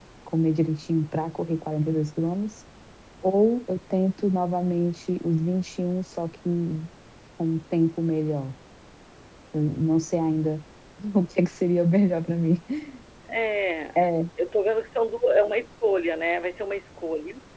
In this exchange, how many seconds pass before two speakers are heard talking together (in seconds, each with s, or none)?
none